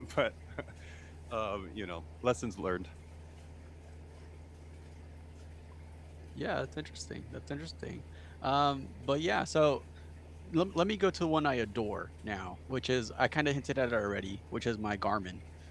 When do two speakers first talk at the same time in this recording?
none

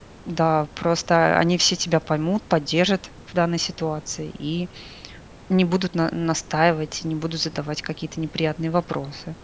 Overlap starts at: none

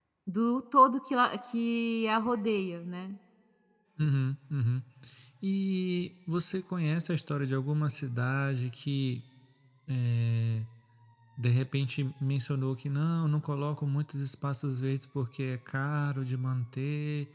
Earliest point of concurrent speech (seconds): none

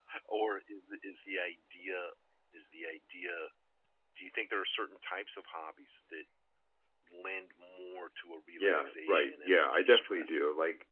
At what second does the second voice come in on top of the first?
8.6 s

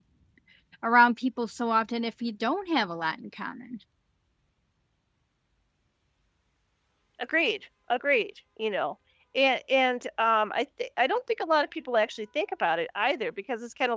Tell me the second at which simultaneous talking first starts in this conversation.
none

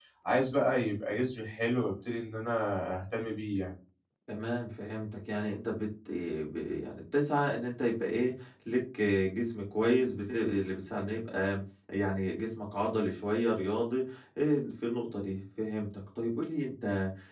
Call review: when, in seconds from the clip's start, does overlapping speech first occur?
none

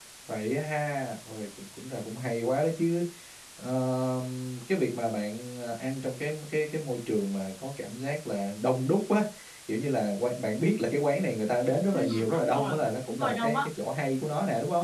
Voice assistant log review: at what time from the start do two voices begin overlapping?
11.9 s

